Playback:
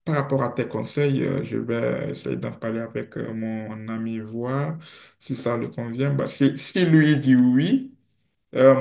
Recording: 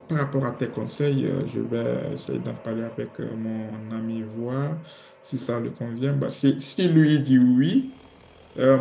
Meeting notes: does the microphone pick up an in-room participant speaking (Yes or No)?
No